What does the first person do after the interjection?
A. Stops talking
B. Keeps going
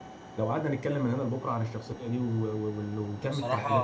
A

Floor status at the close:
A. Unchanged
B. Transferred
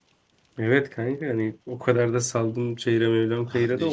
B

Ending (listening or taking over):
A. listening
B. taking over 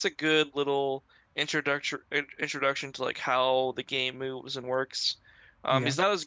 A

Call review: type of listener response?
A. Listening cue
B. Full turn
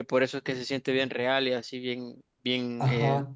B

